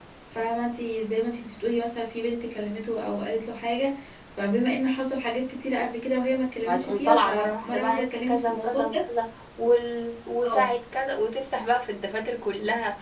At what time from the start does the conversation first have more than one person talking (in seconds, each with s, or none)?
6.7 s